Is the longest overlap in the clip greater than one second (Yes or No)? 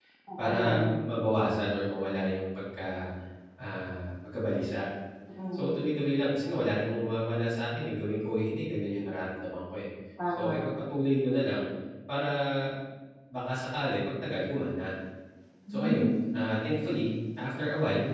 No